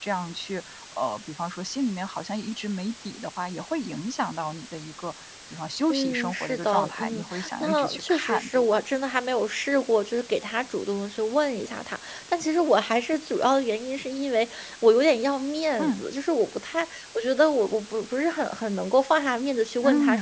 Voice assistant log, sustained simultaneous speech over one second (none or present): present